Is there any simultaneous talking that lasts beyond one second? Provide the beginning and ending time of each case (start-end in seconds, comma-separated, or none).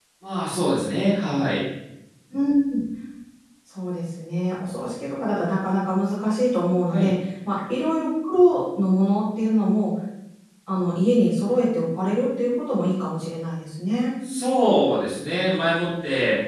none